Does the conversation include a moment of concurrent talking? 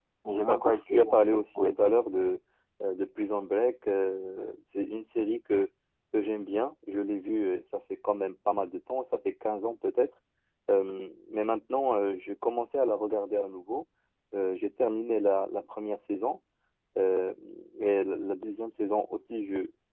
Yes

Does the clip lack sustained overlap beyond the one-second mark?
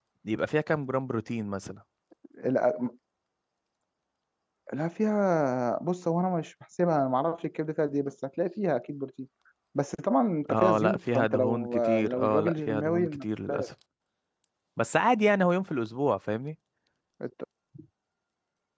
No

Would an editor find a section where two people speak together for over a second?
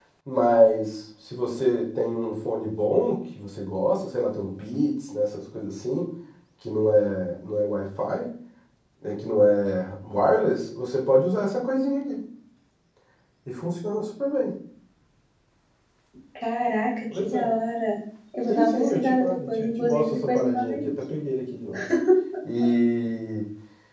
Yes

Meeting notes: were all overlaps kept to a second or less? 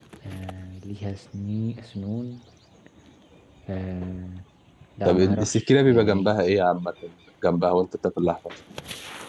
No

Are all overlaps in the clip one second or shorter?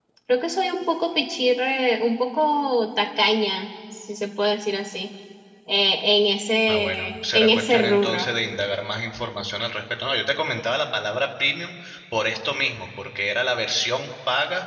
No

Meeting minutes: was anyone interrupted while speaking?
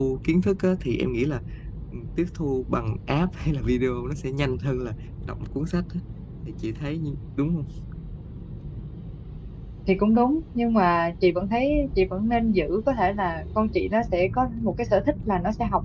No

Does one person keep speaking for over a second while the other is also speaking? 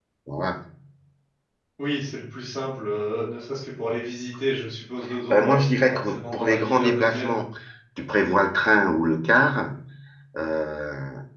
Yes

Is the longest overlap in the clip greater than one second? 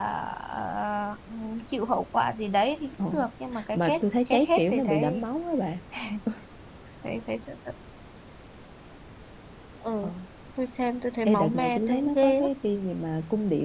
Yes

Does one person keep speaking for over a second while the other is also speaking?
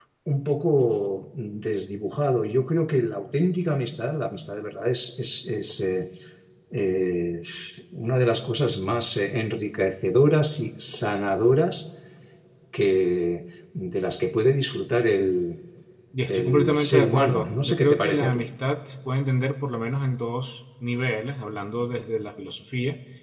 Yes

